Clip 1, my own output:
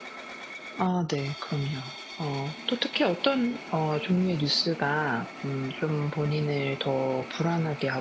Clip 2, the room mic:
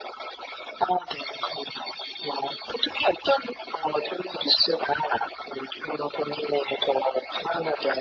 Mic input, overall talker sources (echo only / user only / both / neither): echo only